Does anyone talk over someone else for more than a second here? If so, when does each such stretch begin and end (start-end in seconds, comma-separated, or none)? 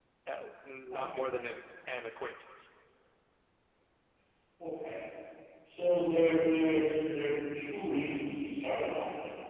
none